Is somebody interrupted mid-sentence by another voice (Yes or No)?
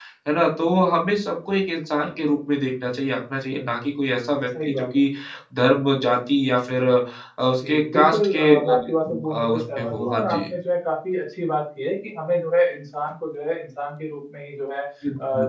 Yes